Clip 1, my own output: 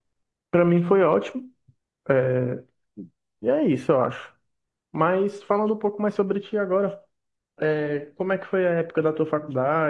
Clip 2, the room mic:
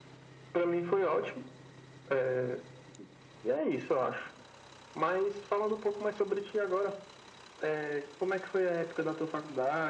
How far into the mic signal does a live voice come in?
none

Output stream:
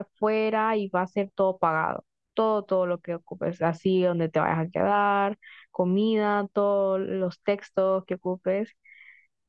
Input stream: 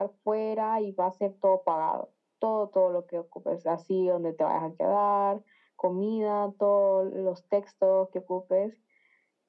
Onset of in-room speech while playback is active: none

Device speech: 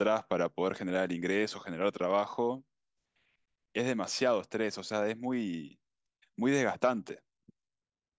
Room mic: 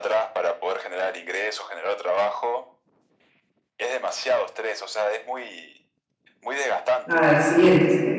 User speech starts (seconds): 7.1 s

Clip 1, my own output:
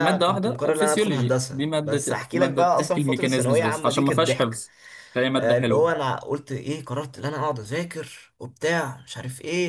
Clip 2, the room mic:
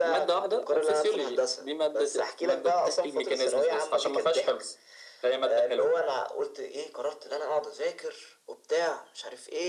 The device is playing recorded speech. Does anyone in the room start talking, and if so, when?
none

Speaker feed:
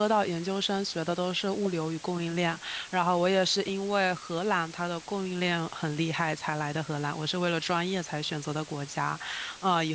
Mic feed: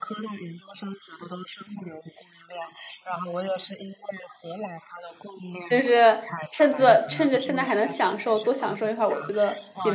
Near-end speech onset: 5.7 s

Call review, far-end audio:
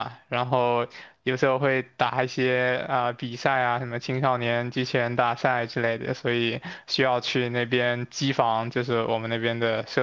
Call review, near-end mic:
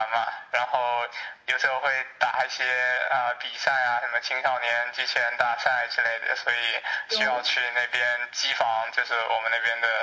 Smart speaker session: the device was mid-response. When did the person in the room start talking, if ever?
7.0 s

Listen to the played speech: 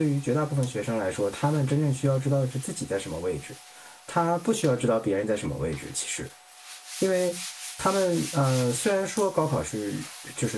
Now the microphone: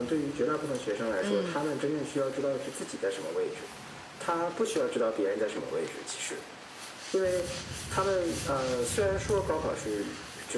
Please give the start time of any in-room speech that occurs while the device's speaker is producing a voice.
1.2 s

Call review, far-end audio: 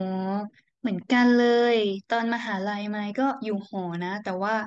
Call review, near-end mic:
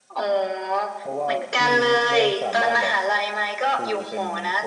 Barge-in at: 1.0 s

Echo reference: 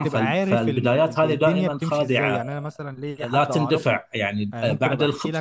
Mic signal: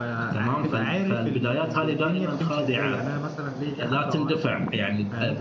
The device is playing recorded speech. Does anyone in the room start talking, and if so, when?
none

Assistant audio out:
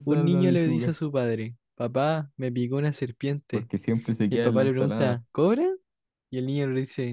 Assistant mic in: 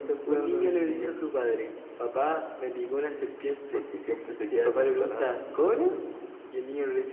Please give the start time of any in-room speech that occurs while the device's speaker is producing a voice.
none

